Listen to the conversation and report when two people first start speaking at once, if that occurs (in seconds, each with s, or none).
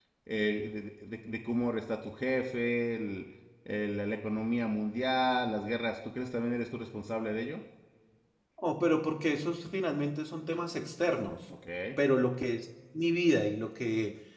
none